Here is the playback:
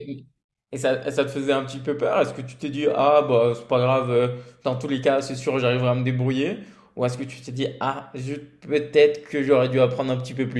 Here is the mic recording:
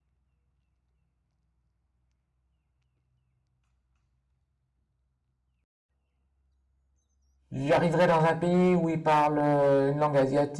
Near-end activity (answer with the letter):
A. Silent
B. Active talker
B